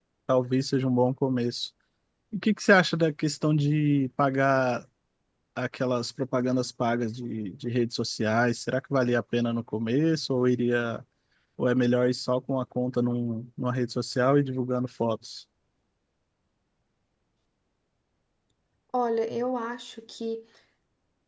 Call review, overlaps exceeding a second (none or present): none